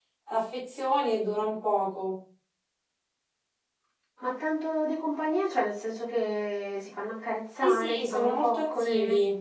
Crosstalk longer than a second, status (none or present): present